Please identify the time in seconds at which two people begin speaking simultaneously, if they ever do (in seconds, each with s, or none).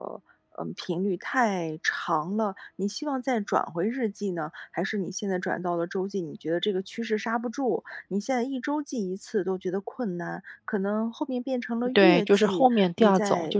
12.0 s